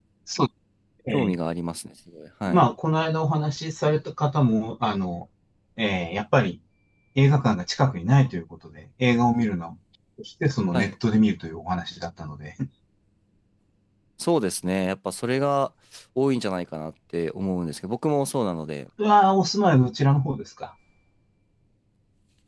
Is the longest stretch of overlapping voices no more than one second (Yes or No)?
Yes